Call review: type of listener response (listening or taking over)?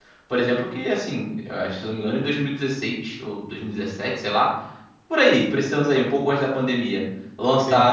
listening